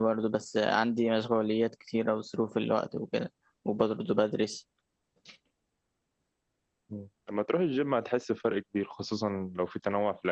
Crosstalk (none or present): none